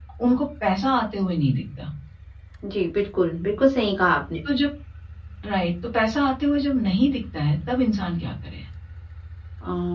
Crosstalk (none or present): none